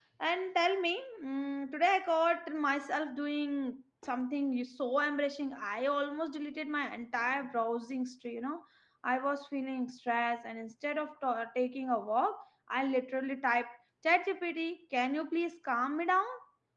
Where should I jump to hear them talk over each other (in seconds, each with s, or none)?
none